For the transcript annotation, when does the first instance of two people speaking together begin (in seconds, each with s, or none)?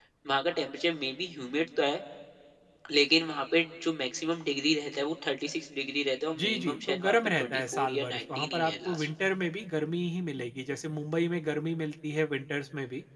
6.3 s